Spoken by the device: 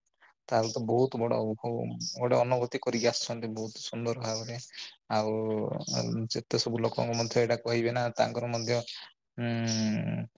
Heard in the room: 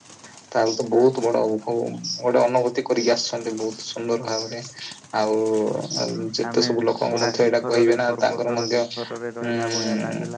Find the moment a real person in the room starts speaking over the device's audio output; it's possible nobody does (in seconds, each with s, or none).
6.5 s